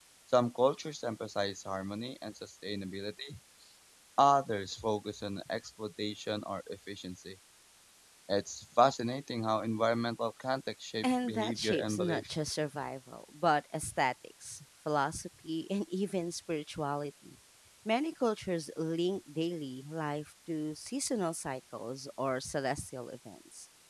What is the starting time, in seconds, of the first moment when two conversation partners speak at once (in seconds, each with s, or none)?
11.0 s